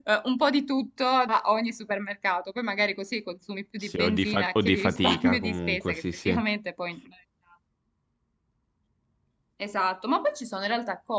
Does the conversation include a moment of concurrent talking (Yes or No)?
Yes